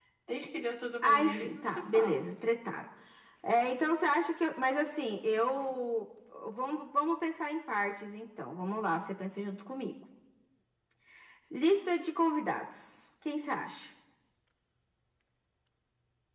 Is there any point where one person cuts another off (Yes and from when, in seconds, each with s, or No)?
Yes, from 1.0 s